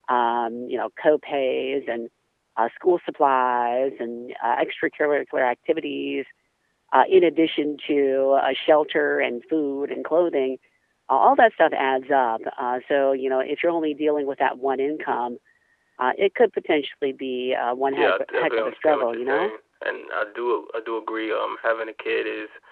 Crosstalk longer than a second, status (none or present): present